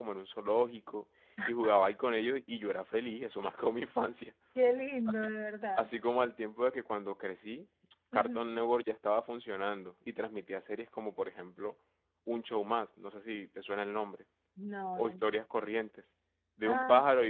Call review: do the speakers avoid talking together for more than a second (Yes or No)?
Yes